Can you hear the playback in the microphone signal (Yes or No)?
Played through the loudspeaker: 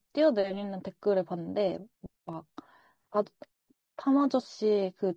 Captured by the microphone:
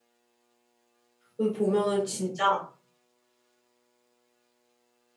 No